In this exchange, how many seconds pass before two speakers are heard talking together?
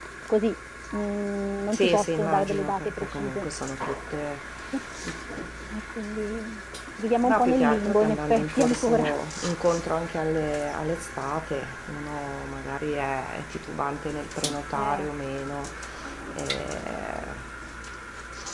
2 s

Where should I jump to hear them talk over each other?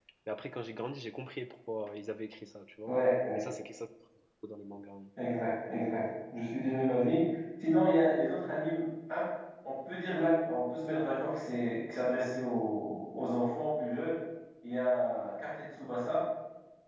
none

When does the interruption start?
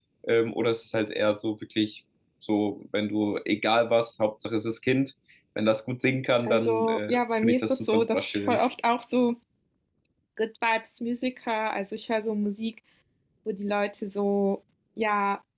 6 s

